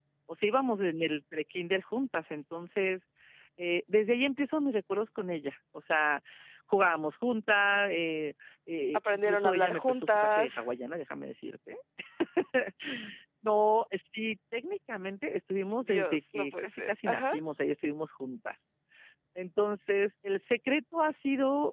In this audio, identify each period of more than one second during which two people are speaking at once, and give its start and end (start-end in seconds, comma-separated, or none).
8.9-10.5, 15.9-17.3